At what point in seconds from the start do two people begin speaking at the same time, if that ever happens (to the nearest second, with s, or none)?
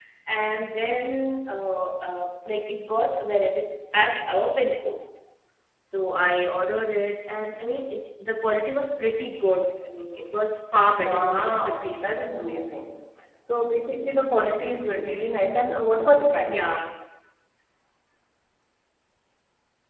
11 s